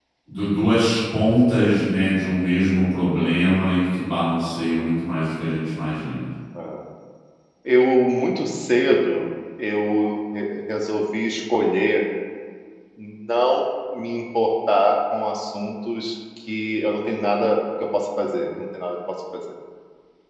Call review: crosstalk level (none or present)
none